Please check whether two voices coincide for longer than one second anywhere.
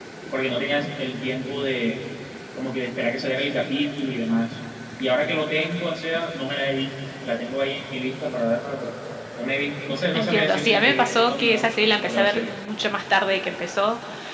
Yes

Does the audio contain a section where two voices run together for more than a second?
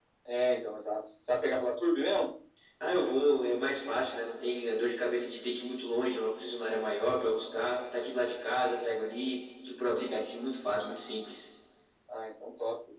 No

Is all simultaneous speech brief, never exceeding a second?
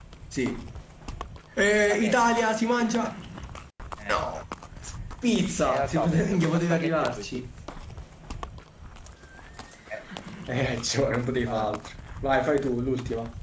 No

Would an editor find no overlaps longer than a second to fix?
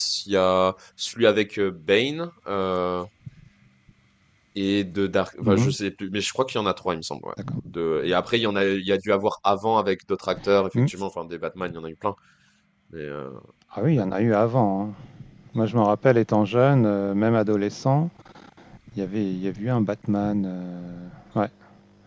Yes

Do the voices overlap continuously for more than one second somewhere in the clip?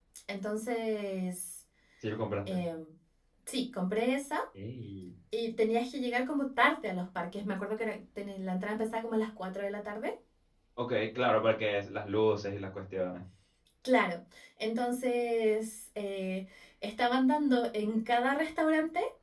No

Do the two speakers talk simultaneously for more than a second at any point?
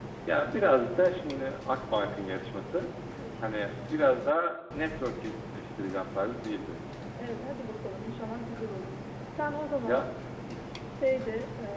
No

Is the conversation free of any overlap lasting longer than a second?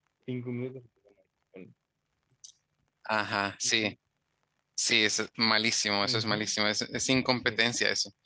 Yes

